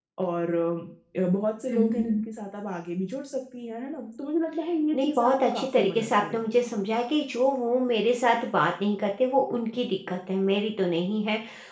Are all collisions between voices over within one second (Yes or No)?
No